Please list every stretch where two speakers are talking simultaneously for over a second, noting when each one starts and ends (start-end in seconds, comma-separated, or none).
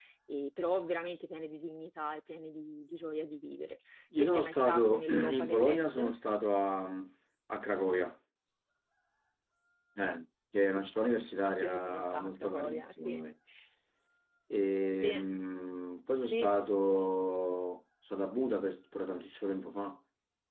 4.2-6.0, 11.4-13.2